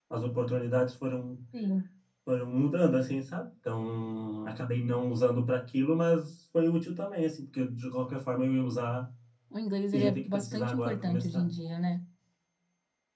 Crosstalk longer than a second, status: present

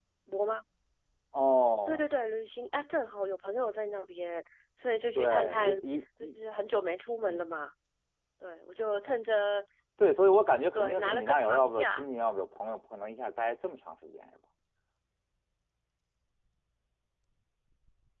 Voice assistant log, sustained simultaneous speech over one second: present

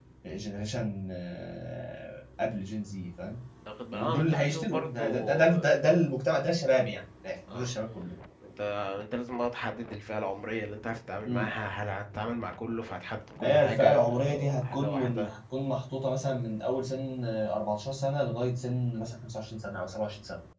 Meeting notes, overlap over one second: present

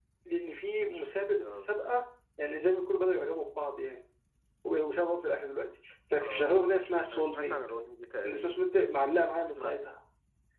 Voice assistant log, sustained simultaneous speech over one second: none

